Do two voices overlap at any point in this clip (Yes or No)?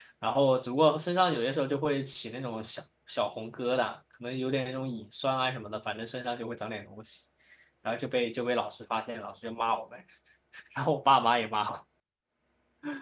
No